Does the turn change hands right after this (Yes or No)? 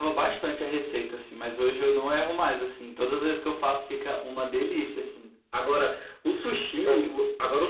No